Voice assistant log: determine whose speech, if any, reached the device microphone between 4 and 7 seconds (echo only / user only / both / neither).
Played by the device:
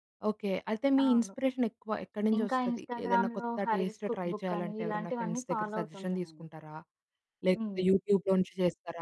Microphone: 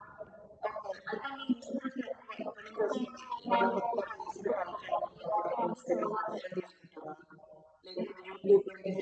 echo only